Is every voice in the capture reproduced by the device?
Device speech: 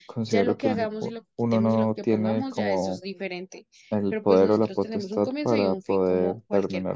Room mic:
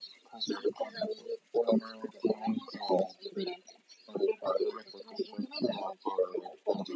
Yes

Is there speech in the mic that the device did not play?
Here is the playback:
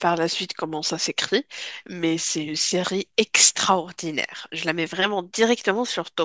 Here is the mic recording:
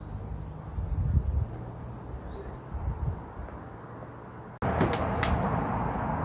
No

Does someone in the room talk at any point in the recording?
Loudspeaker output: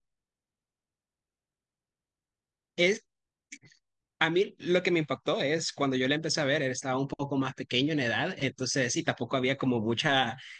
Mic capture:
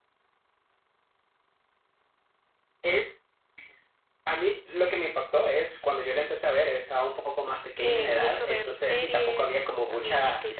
Yes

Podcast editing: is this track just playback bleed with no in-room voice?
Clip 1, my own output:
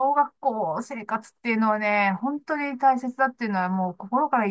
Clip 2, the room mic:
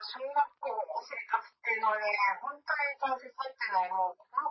Yes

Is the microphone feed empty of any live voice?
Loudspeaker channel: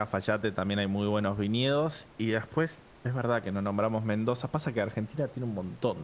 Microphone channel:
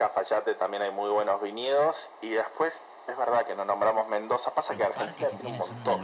No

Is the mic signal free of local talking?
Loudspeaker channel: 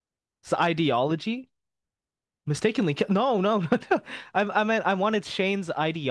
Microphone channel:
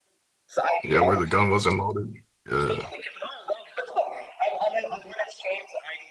No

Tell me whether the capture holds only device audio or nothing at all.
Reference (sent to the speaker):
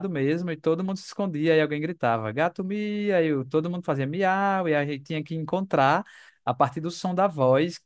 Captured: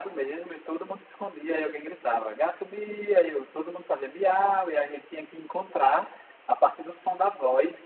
Yes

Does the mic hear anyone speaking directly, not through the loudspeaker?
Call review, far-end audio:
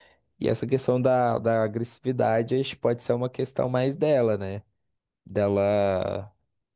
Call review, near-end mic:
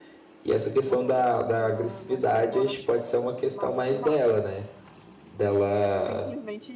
Yes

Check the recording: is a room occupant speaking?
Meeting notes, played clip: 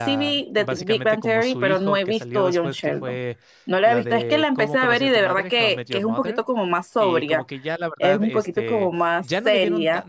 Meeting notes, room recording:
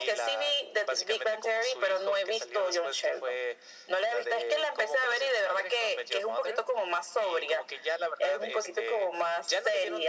No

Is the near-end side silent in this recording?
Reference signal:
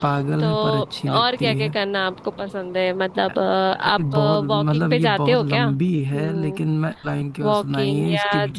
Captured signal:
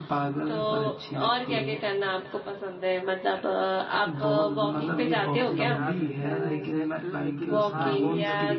No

